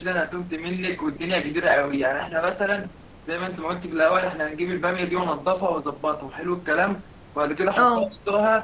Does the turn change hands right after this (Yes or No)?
No